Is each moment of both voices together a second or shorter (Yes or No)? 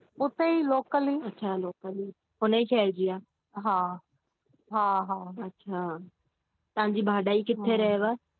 Yes